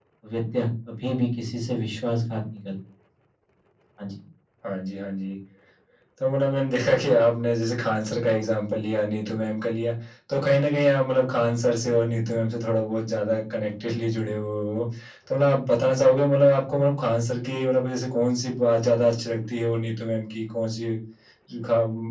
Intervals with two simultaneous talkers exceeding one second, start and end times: none

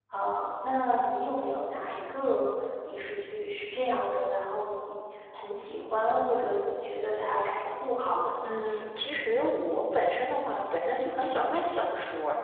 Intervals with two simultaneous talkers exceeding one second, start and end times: none

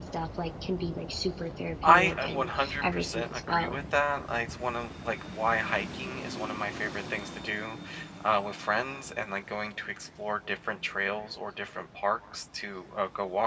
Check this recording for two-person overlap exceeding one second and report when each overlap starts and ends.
1.9-3.8

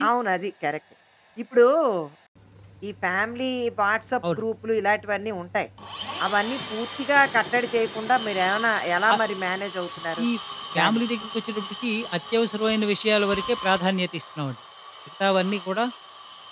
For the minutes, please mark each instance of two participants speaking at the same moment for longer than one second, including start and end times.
none

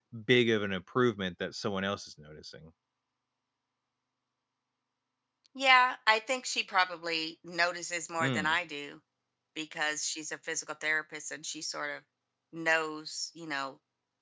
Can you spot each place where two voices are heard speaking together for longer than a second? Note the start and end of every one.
none

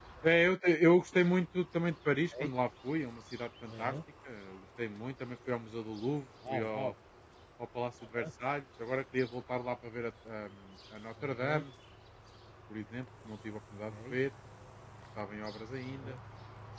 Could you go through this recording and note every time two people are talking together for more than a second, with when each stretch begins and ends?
none

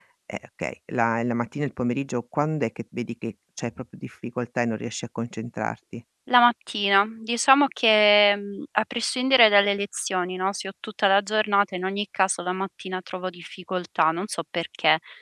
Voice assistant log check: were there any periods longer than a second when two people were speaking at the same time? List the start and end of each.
none

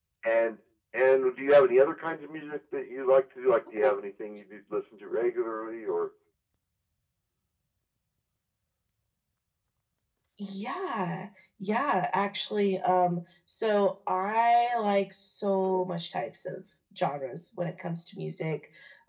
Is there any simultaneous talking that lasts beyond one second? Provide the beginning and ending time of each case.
none

